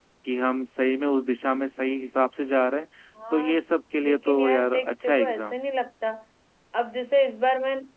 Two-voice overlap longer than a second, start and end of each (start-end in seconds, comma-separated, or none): 4.0-5.6